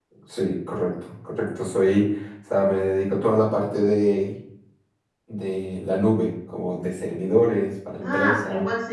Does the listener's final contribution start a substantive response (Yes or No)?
Yes